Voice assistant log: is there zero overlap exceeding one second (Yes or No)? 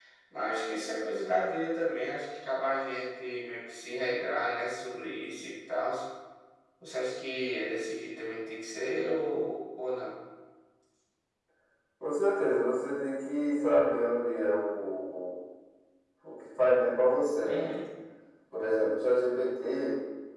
Yes